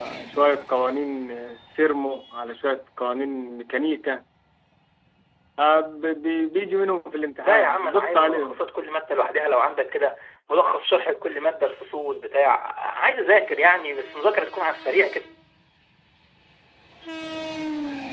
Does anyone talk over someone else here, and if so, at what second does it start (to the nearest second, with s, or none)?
7 s